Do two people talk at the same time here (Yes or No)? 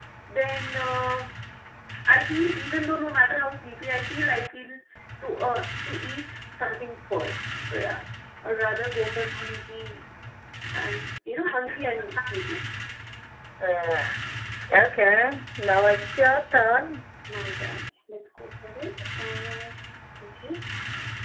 No